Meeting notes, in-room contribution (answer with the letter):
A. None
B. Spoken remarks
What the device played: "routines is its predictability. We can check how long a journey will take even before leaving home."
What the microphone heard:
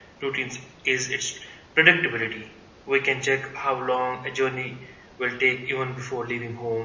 A